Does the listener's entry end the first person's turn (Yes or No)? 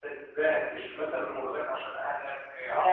Yes